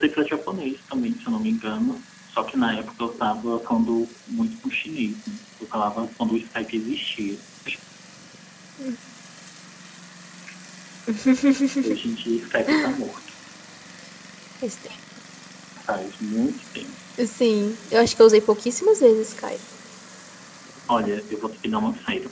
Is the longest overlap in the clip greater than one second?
No

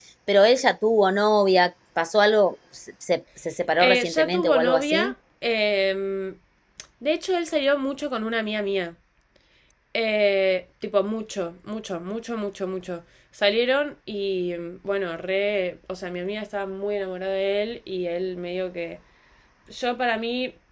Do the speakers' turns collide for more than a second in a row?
Yes, from 3.8 s

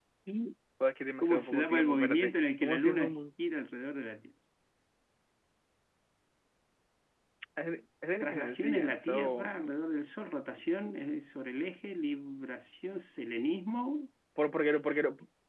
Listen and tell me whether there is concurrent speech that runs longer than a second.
Yes, from 1.2 s

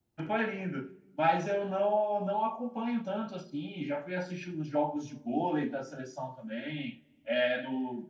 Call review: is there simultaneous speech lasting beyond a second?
No

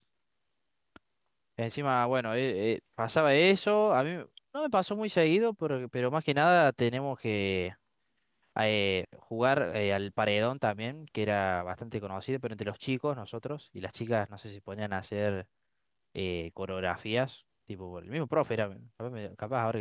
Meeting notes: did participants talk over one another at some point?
No

